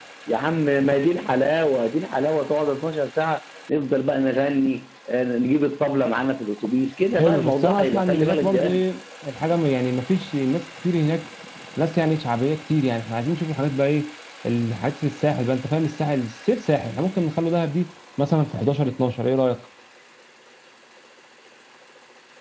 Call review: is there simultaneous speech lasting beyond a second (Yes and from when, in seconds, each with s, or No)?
Yes, from 7.1 s